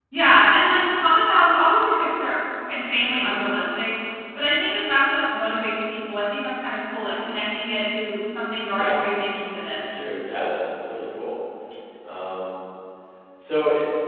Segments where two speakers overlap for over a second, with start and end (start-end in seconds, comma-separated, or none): none